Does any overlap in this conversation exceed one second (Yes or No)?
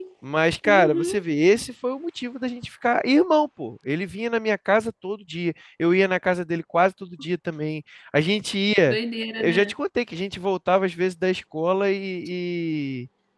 No